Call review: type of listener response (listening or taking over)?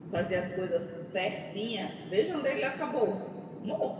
taking over